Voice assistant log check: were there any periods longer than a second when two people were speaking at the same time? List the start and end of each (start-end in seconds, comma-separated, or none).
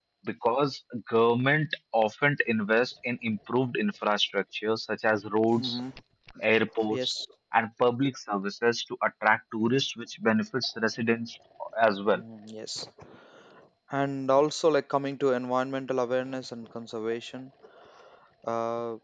none